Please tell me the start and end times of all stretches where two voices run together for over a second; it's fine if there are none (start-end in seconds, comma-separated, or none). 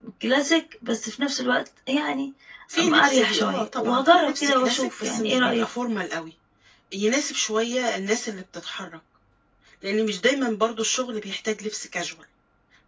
2.8-5.6